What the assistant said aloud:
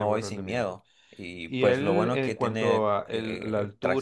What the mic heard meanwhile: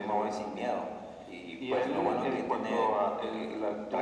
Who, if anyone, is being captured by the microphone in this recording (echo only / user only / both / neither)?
echo only